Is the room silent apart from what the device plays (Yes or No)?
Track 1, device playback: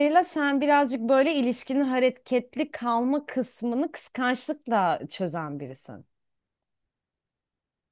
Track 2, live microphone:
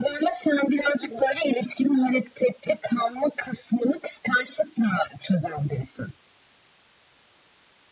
Yes